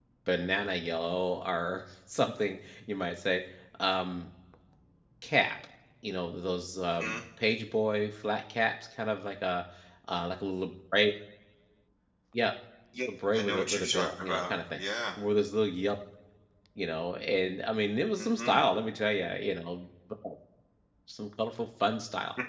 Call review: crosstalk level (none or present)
present